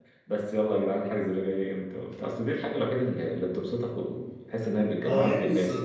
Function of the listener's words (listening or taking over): taking over